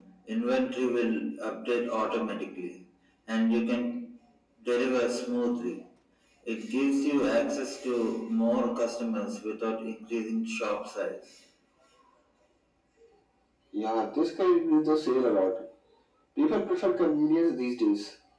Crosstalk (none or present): none